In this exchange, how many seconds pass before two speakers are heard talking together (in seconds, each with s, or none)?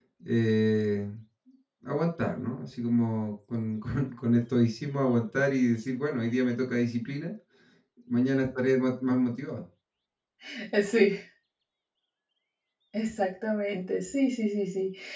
none